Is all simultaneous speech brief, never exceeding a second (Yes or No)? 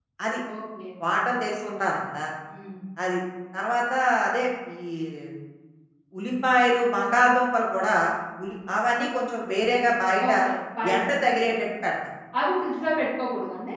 Yes